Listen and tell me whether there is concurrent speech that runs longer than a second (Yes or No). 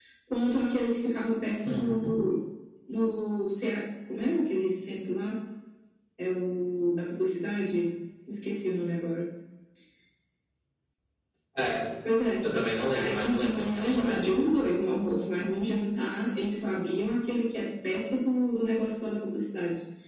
Yes